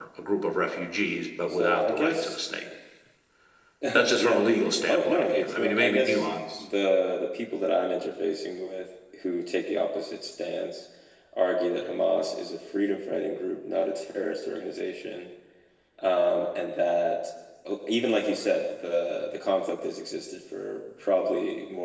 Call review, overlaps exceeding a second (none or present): present